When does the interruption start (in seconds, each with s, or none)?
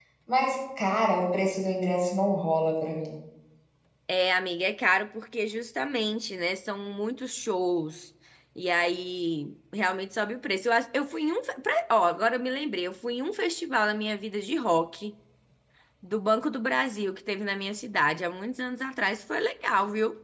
none